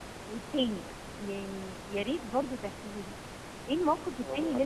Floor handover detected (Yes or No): No